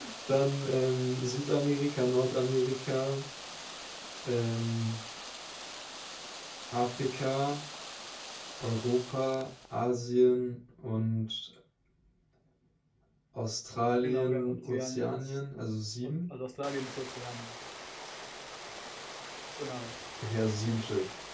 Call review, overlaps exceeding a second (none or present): present